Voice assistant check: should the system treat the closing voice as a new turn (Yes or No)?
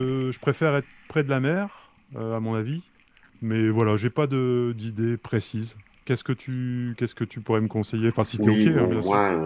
Yes